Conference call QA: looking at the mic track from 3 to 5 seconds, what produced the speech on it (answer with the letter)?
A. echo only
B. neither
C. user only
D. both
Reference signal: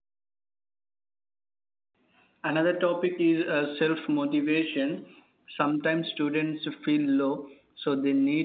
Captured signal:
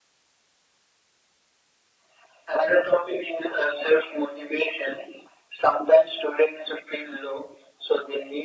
A